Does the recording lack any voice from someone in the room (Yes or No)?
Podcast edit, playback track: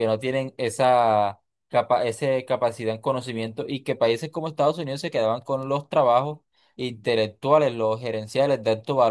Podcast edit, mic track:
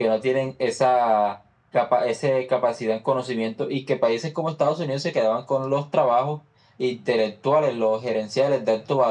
Yes